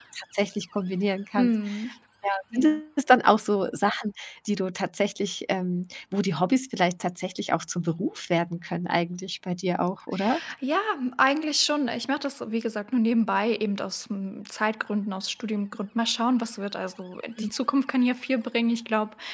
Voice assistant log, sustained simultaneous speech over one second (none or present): none